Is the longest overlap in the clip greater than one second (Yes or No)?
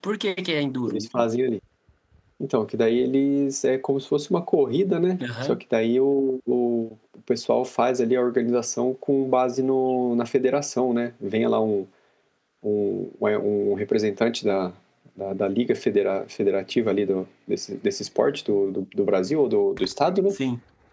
No